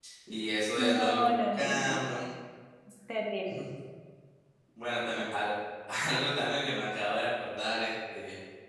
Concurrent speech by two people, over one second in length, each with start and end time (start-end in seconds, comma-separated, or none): 0.8-2.0